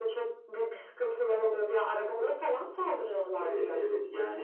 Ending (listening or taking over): taking over